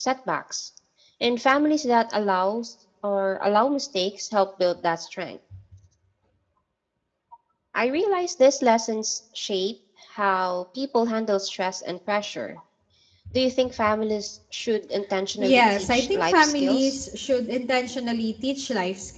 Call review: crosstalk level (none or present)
present